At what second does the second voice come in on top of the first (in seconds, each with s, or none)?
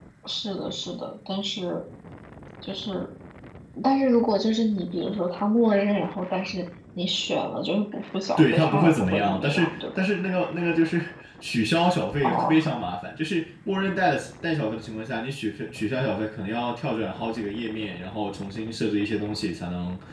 8.4 s